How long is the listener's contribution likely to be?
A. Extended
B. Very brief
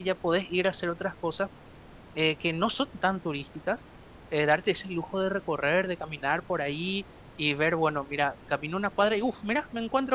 B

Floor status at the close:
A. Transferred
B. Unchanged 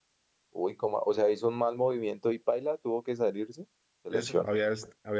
A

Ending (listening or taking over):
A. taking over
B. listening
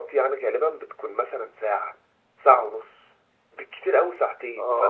A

